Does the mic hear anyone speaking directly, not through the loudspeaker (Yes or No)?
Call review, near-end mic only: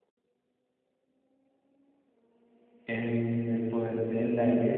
Yes